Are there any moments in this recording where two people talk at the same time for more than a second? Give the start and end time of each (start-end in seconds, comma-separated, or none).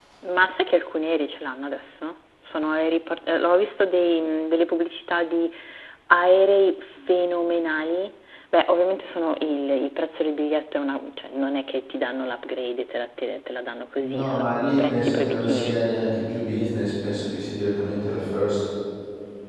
14.0-15.8